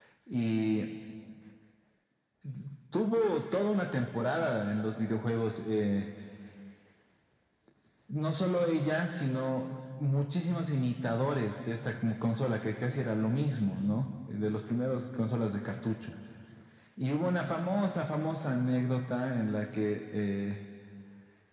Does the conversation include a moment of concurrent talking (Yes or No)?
No